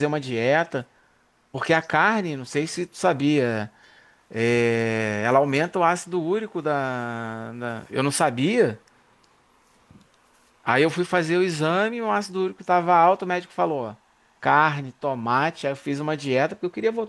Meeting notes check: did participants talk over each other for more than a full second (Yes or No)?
No